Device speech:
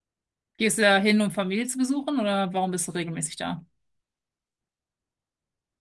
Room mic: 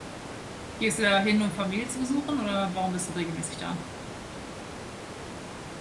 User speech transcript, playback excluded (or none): none